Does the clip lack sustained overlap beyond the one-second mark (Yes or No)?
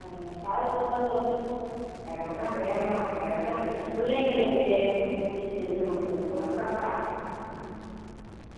Yes